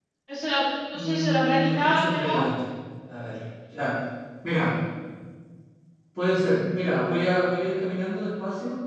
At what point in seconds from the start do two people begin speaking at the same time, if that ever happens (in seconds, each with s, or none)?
0.9 s